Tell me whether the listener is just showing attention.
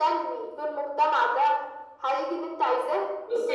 No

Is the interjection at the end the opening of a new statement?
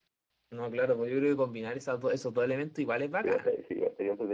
Yes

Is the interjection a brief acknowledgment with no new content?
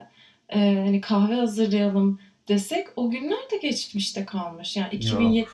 Yes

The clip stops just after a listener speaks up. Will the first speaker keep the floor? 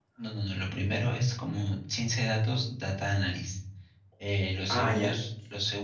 Yes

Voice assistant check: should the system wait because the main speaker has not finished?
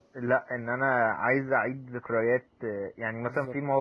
Yes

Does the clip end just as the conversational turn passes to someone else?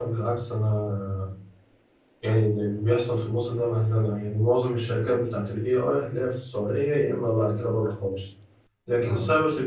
No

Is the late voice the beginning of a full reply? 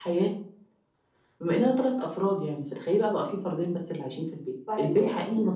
Yes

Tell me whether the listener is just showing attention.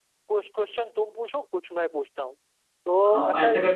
No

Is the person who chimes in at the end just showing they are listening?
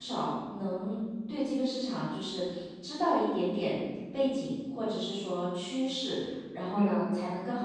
Yes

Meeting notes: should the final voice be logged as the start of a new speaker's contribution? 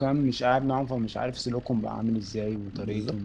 No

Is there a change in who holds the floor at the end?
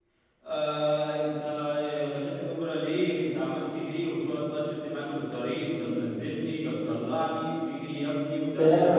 Yes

